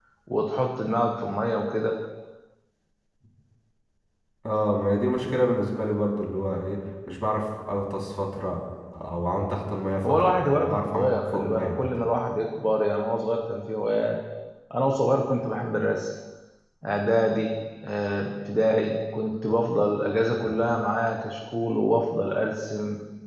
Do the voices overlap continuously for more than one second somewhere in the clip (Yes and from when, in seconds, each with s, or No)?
Yes, from 10.1 s